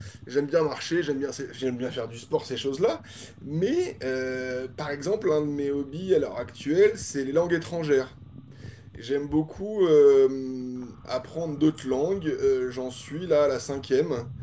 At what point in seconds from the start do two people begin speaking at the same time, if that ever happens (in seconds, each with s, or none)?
none